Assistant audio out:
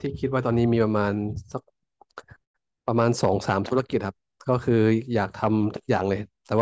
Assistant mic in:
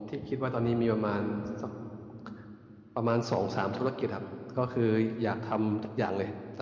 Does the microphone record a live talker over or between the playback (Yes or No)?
No